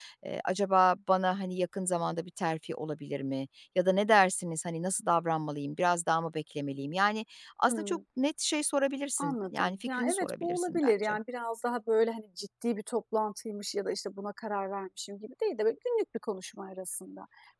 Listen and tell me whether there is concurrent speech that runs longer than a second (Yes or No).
Yes